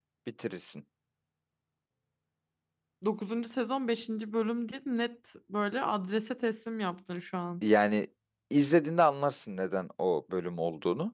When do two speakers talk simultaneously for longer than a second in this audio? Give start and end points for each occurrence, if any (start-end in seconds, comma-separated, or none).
none